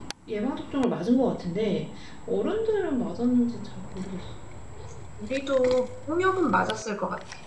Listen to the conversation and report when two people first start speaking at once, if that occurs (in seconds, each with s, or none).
none